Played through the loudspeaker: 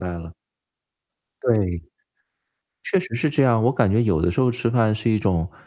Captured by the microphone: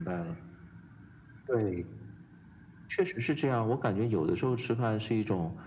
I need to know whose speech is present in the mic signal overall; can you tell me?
echo only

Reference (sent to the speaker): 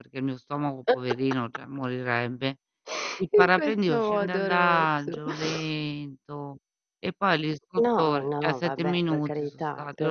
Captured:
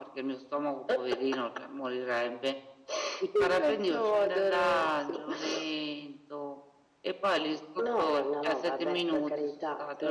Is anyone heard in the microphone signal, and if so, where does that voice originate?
echo only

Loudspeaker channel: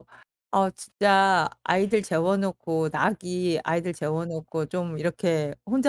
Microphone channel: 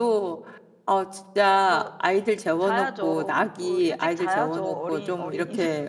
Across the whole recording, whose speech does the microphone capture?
both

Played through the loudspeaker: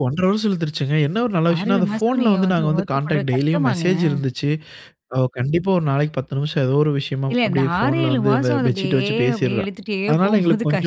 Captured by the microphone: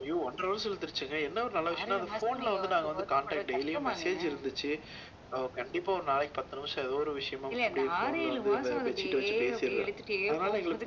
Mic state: echo only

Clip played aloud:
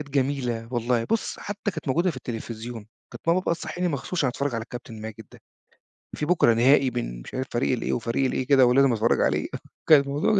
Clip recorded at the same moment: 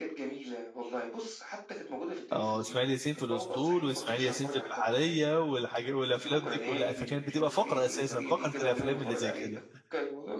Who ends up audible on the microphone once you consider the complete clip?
both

